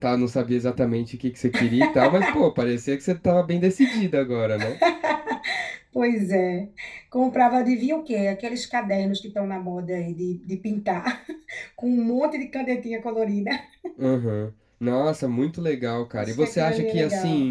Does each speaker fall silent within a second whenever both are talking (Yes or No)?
No